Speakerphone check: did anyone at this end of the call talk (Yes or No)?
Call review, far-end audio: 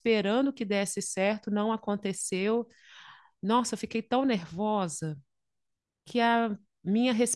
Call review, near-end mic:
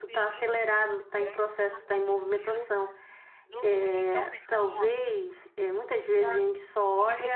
Yes